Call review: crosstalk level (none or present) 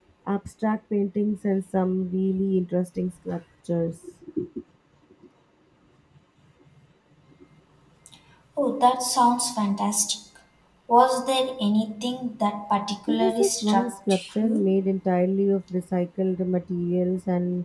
present